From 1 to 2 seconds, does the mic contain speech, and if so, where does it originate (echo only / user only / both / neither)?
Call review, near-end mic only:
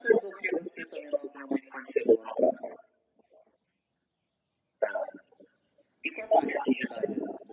echo only